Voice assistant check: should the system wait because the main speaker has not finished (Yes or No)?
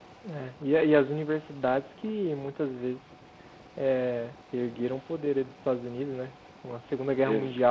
Yes